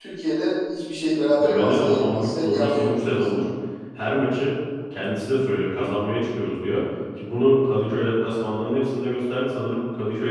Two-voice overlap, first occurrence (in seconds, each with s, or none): 1.4 s